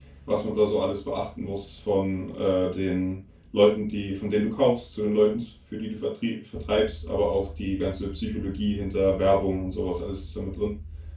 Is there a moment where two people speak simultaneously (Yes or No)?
No